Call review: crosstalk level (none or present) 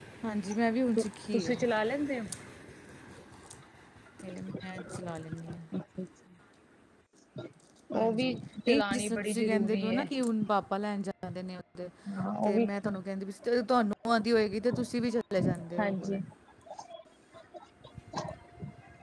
present